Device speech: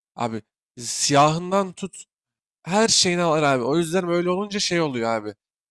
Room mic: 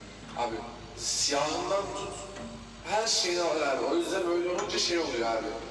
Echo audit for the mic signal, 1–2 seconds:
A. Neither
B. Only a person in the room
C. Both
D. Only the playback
D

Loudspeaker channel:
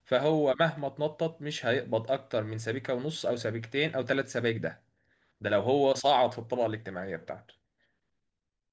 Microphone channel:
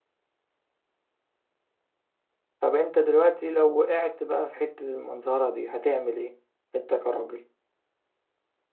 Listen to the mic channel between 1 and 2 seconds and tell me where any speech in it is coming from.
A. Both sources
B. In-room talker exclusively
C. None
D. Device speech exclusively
C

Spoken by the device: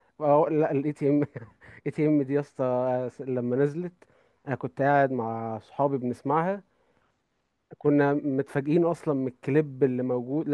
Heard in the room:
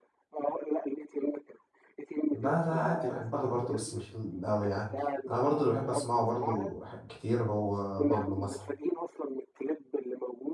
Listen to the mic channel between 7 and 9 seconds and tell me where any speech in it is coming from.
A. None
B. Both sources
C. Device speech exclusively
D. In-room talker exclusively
B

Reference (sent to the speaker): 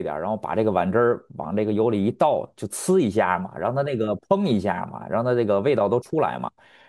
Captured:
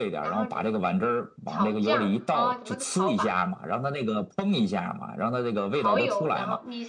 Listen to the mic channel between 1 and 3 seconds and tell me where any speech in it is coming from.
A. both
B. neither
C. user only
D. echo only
A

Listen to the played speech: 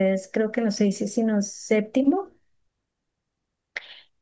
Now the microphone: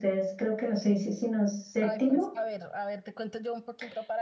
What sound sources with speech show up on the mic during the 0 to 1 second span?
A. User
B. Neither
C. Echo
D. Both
C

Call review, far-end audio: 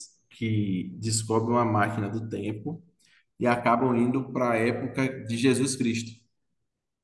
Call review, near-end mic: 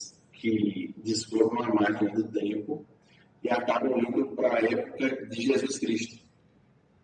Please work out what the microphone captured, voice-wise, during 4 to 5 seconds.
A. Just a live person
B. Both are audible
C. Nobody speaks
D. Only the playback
D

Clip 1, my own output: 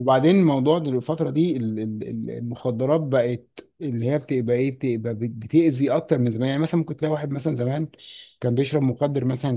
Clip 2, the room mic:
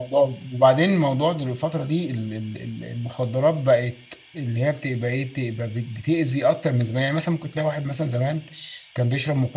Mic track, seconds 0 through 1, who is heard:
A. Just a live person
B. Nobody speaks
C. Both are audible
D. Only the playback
D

